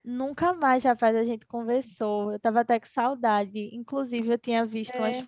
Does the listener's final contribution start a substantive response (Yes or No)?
No